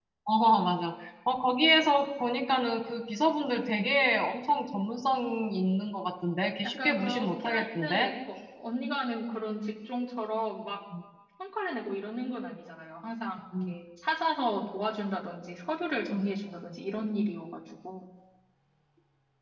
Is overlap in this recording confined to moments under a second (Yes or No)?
No